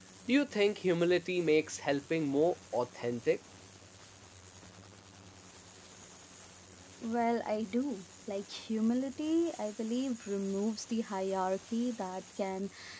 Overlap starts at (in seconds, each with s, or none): none